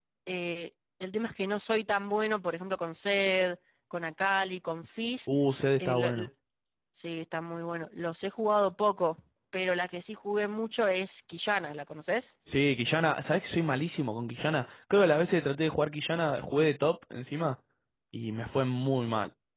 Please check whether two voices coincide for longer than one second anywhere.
No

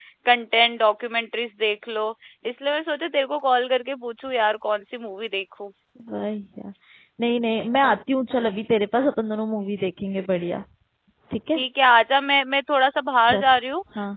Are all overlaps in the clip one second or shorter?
Yes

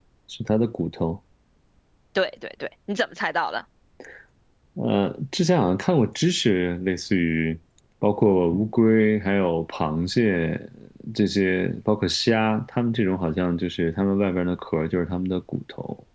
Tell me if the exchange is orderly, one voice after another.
Yes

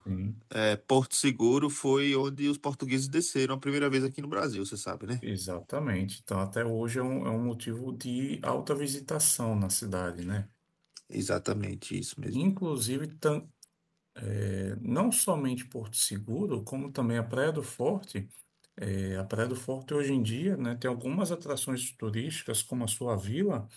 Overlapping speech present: No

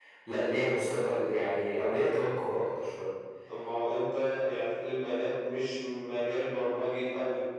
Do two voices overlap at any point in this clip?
No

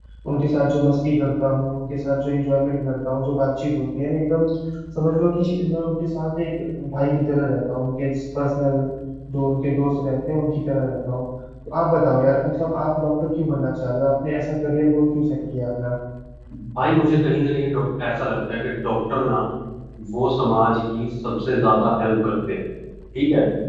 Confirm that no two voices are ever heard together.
Yes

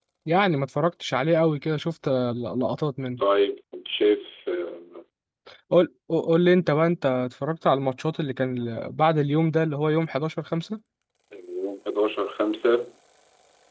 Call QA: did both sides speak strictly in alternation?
Yes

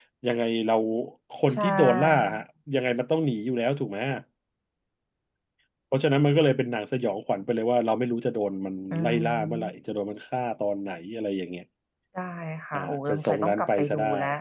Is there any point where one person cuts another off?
Yes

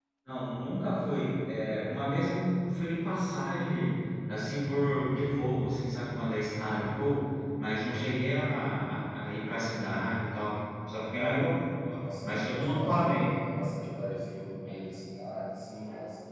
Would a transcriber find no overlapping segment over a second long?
No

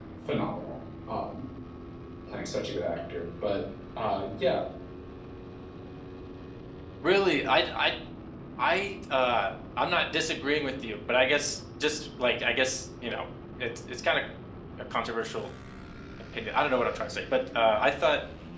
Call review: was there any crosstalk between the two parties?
No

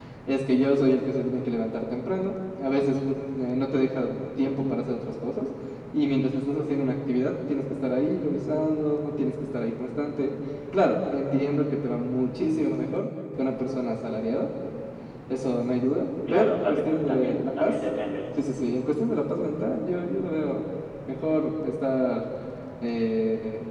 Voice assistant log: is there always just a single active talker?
No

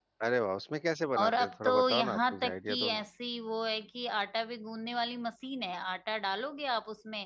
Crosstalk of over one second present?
Yes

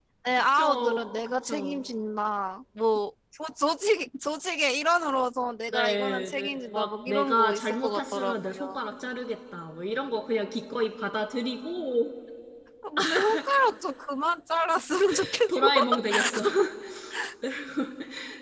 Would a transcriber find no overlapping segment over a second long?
No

